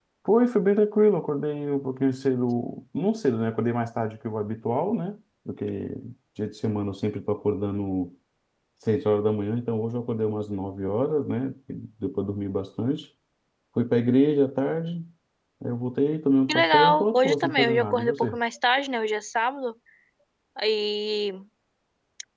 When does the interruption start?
16 s

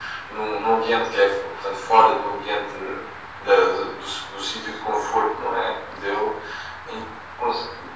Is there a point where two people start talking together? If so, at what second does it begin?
none

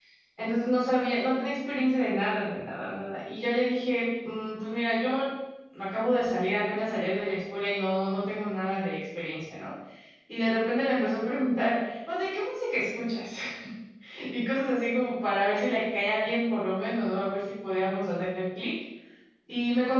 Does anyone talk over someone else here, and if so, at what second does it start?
none

